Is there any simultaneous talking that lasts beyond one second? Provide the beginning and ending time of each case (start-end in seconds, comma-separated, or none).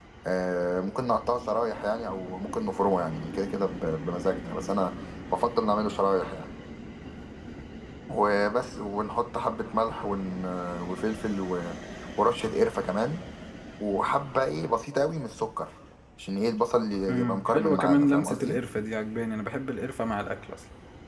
17.1-18.6